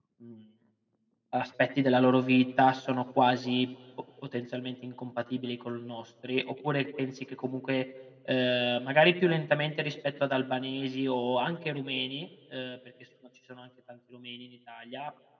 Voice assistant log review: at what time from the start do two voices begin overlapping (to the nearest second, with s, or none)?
none